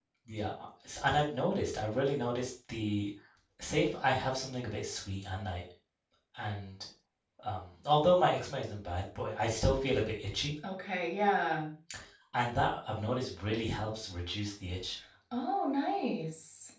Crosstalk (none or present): none